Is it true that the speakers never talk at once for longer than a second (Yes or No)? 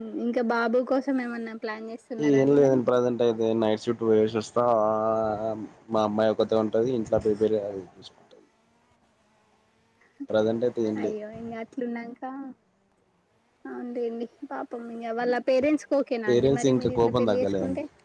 No